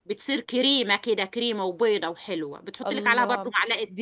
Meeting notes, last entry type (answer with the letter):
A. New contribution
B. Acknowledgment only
A